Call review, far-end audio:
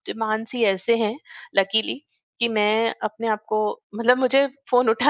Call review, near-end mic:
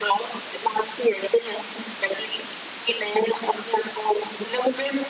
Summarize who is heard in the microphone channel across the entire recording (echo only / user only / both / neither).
echo only